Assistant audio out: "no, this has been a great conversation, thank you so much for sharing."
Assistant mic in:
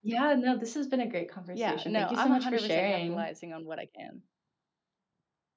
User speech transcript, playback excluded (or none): Yeah, no, I'm 100% capitalizing on what I can.